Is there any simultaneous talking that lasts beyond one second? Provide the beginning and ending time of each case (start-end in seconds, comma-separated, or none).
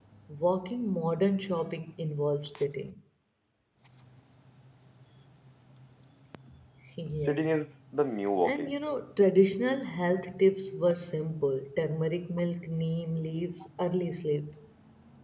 none